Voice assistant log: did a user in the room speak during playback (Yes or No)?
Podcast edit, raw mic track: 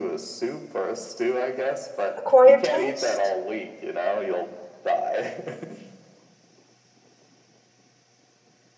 Yes